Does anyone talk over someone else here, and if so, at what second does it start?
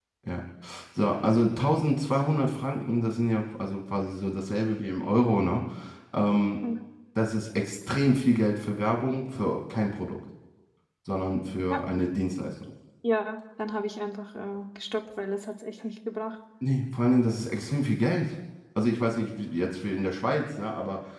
none

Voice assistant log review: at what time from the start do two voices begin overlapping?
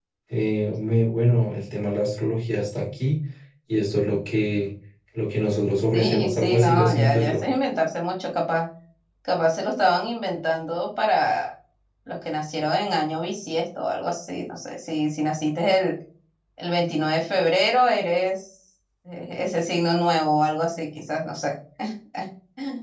5.9 s

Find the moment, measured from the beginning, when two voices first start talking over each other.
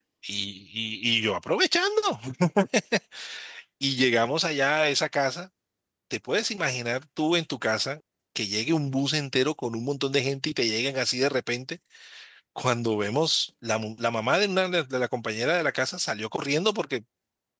none

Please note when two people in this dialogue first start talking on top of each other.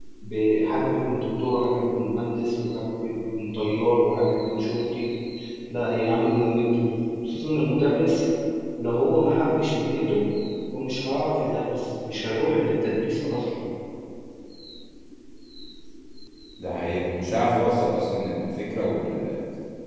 none

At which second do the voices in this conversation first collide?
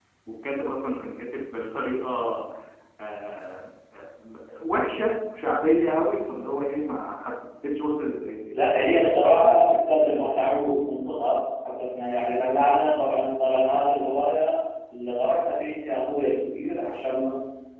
8.5 s

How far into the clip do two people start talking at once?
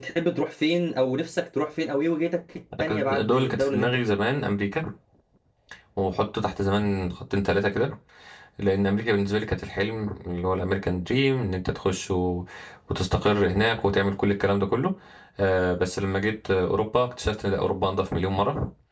2.7 s

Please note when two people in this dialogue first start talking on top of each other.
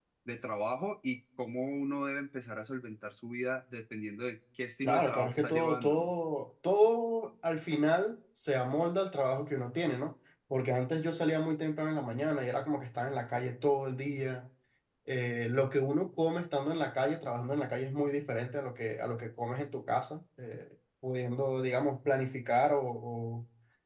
4.8 s

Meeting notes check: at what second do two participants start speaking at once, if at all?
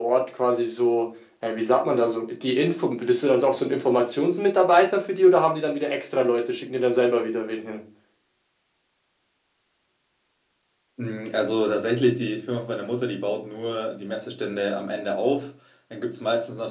none

